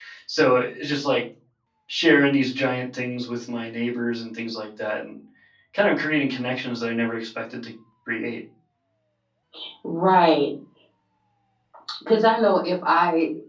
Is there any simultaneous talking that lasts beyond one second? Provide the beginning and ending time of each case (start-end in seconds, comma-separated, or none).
none